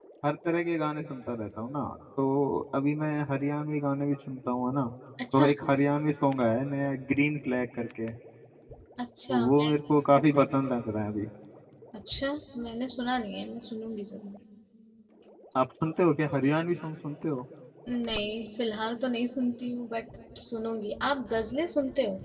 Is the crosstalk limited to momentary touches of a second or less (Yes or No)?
Yes